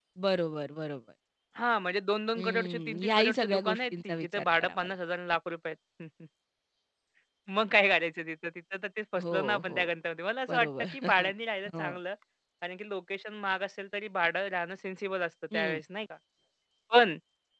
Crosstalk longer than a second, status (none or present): present